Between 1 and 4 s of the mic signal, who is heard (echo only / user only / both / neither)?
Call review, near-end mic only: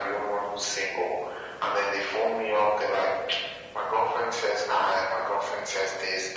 echo only